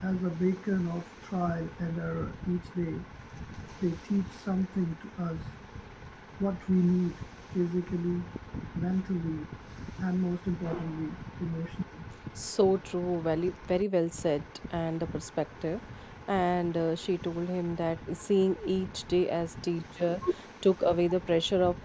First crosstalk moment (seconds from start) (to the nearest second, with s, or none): none